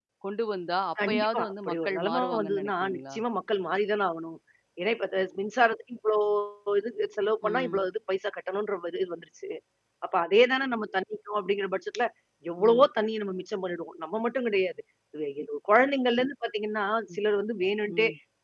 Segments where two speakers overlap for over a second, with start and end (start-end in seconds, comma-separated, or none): 1.1-3.1